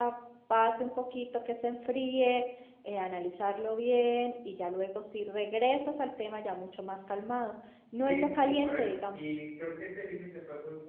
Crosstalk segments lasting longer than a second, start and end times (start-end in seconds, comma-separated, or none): 8.0-9.3